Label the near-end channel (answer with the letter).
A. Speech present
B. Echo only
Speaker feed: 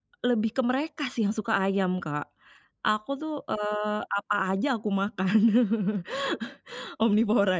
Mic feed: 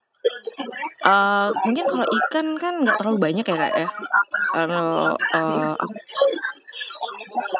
A